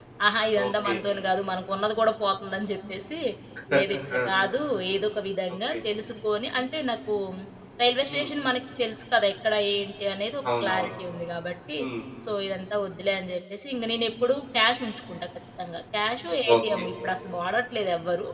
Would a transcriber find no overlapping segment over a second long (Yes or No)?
Yes